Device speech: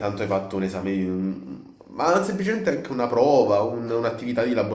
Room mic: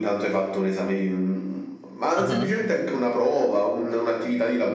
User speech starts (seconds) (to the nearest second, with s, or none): 2 s